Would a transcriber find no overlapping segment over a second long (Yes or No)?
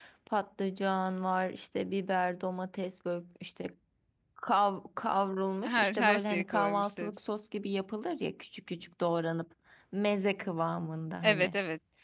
No